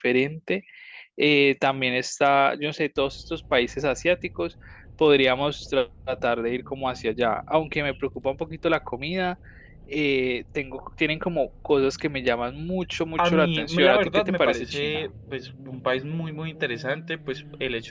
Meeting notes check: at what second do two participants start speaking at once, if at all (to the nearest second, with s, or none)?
13 s